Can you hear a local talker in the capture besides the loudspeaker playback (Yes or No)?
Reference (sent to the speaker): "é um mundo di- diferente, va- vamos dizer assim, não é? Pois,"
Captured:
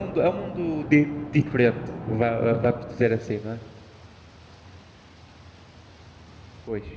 No